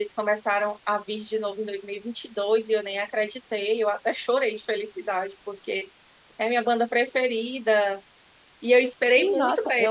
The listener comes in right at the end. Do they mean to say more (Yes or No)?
Yes